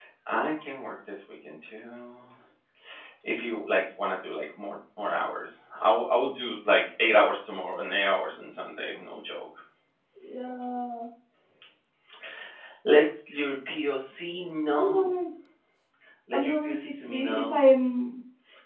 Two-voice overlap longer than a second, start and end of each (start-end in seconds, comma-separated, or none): 16.3-17.6